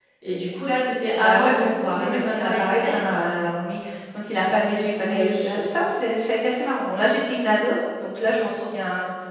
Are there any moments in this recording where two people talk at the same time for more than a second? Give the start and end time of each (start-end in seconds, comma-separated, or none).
1.2-2.9